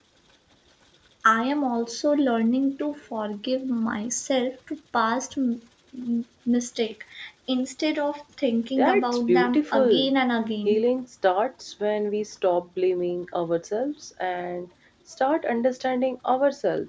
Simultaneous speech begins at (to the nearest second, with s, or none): 9 s